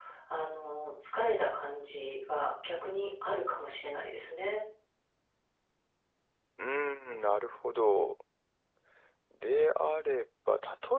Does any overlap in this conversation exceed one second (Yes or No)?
No